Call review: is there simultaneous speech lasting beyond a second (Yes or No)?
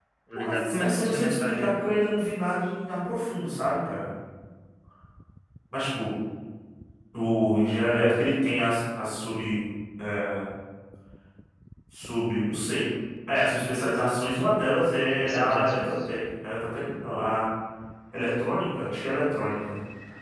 Yes